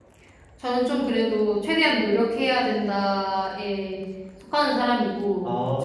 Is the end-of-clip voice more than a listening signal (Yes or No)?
No